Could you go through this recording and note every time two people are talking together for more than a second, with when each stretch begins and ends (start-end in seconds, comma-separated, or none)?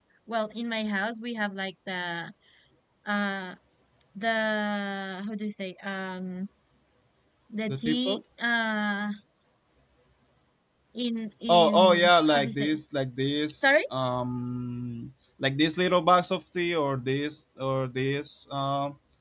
11.5-12.8